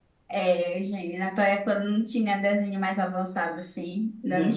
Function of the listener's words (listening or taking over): listening